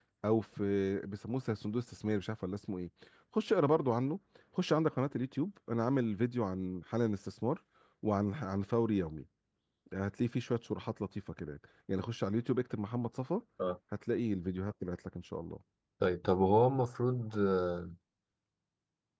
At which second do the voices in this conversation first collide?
none

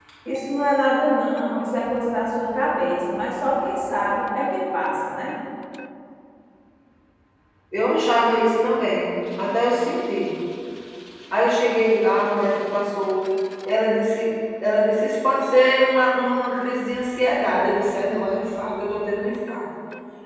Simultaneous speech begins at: none

